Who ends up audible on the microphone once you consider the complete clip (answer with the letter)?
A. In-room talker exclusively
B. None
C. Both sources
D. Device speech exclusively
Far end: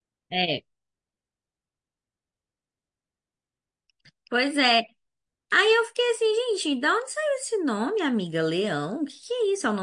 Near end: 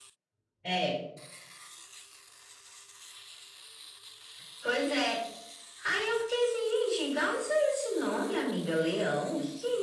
D